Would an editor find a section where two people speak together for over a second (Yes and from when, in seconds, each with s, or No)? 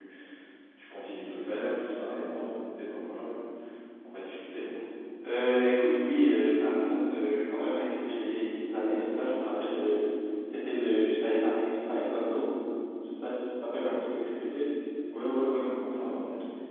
No